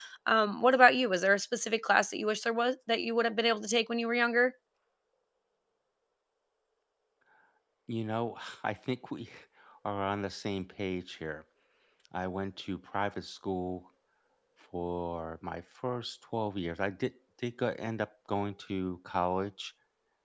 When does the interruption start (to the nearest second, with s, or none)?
none